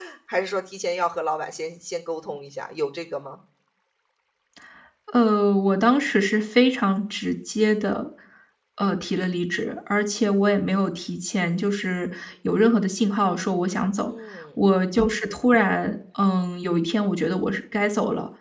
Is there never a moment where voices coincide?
Yes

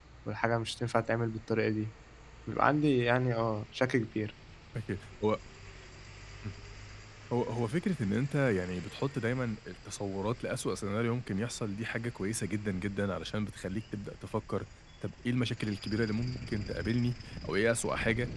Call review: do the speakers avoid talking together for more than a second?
Yes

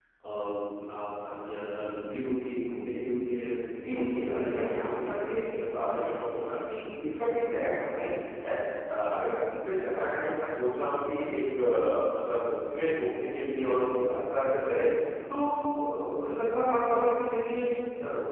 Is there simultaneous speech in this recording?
Yes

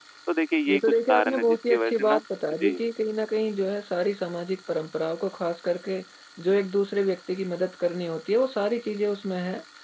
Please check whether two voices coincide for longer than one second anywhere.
Yes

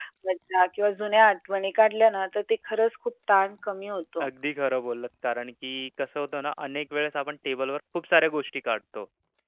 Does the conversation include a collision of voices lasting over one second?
No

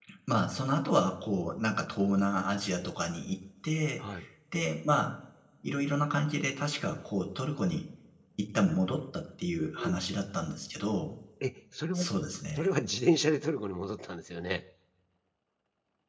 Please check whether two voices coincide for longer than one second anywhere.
No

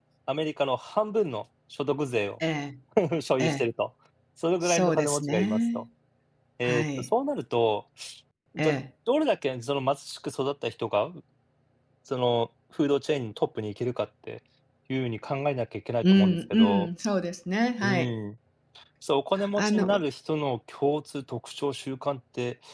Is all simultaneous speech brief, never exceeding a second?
No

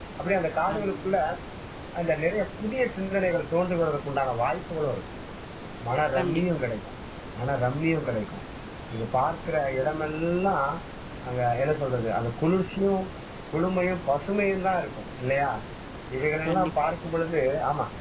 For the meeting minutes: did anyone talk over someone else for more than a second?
No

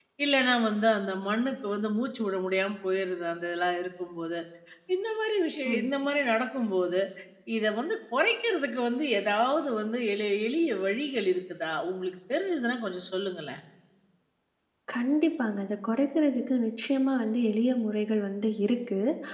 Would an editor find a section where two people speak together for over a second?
No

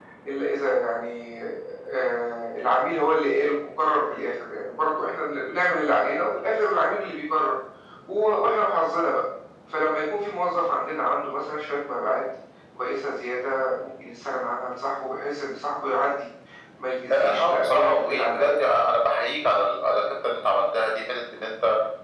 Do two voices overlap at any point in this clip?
Yes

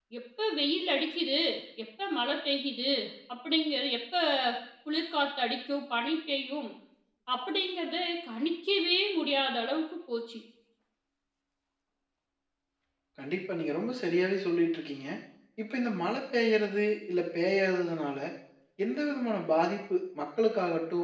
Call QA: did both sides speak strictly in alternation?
Yes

